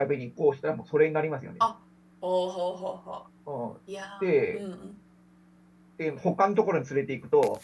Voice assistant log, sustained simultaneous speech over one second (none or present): none